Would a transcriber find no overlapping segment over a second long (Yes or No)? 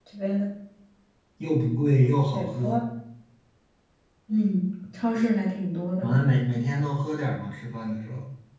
Yes